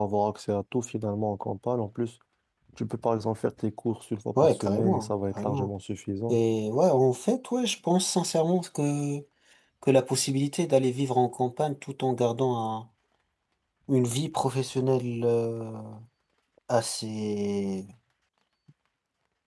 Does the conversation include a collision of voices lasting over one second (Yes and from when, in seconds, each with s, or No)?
Yes, from 4.3 s